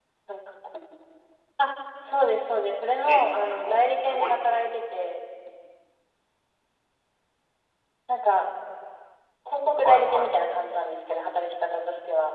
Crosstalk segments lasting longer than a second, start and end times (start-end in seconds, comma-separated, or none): 3.0-4.6